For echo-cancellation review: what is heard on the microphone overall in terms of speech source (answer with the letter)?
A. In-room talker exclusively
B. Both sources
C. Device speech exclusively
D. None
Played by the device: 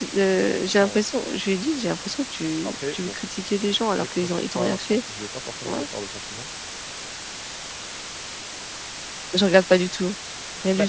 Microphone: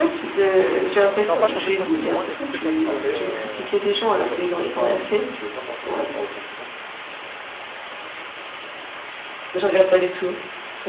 B